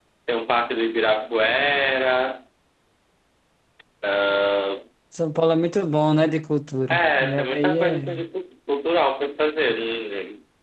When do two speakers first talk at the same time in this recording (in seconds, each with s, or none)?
6.9 s